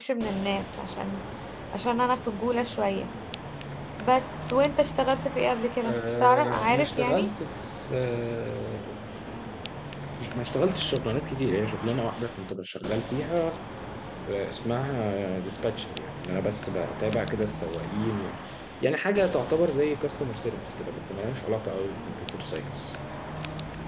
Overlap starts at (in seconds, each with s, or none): 5.8 s